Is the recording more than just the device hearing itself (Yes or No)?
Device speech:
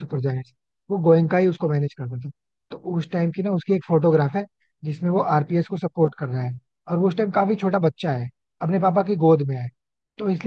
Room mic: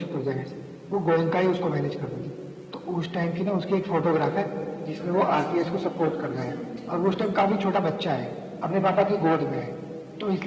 Yes